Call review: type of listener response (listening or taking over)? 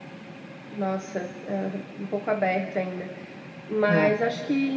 listening